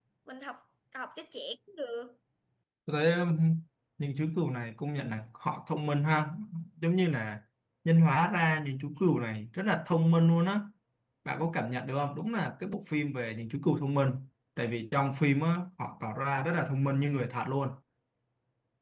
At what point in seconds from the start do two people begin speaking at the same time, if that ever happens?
none

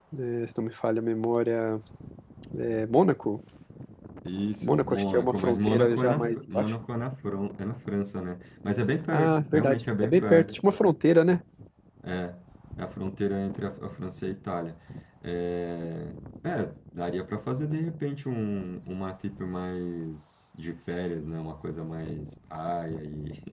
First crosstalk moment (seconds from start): 4.6 s

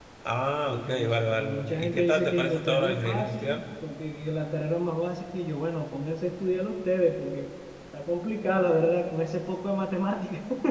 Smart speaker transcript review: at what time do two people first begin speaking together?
0.7 s

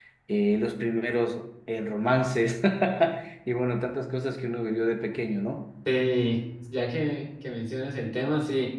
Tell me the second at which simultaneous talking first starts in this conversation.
none

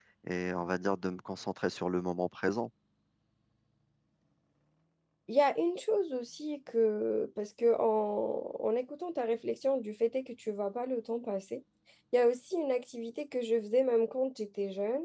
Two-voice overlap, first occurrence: none

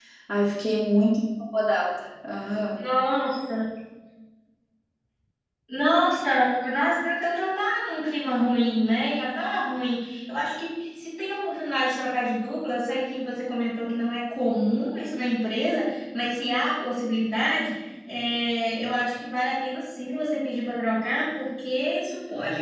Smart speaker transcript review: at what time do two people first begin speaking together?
none

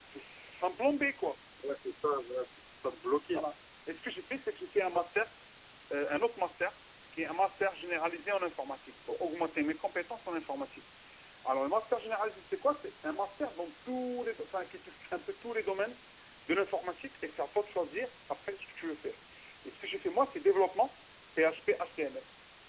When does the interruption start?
none

